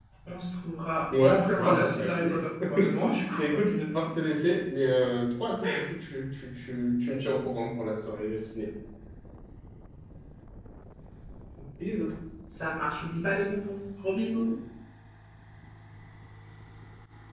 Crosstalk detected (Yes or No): Yes